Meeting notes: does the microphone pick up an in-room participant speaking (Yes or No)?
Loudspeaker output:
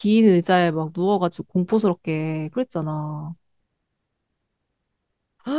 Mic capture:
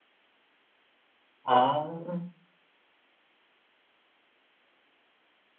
Yes